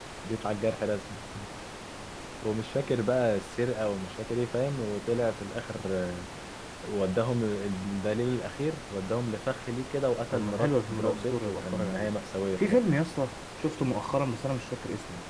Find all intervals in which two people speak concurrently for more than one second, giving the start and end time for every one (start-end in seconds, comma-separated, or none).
10.3-12.1